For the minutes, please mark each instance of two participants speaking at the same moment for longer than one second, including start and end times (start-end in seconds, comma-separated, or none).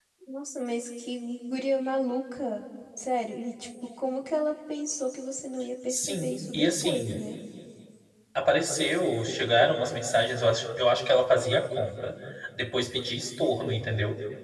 5.9-7.2